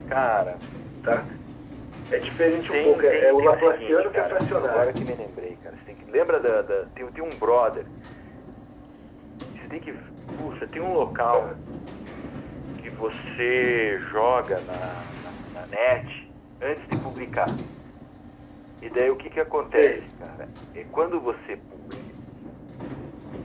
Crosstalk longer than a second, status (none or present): present